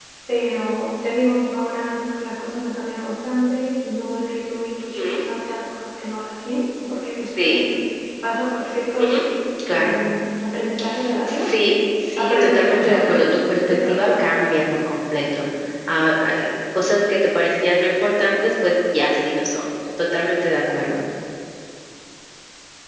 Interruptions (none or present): present